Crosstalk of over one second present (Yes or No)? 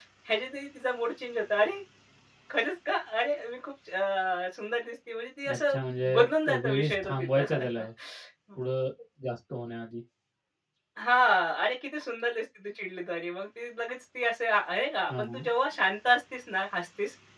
Yes